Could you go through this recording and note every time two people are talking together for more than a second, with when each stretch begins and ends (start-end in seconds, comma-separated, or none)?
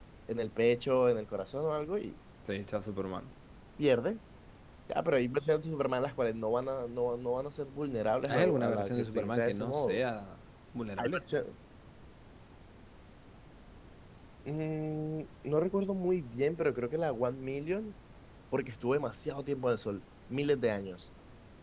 8.3-10.0